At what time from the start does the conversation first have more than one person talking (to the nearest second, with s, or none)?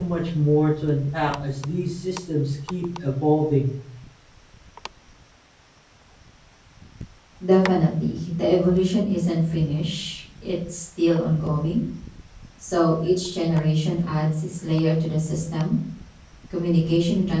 none